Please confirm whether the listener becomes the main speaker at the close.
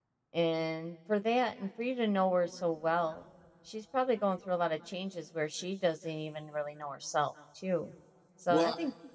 No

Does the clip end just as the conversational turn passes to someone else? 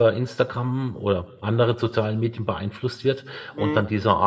No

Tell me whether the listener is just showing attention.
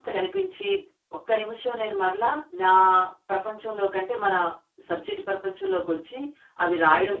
Yes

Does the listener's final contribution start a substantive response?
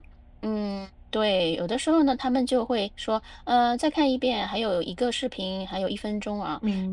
No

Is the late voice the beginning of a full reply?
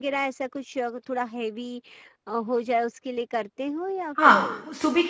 Yes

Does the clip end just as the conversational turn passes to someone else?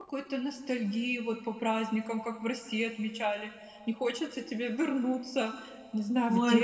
Yes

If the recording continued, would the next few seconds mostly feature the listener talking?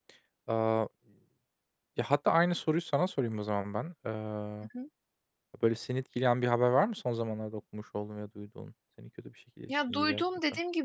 Yes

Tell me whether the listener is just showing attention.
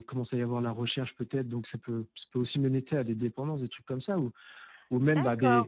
No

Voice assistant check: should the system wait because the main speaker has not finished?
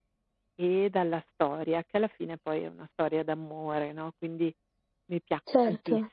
Yes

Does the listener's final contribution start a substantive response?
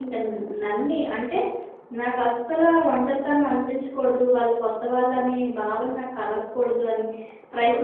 Yes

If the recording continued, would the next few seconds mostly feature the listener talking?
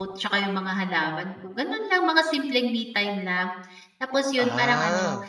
No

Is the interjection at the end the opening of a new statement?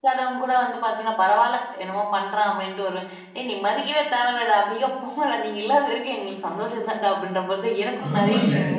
Yes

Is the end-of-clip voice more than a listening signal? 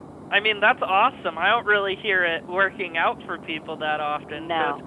No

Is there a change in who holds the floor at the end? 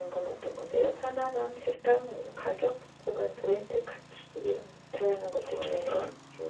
Yes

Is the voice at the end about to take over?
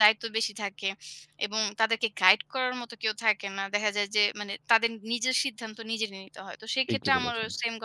No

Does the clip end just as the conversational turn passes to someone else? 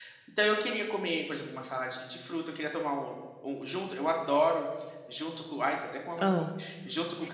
No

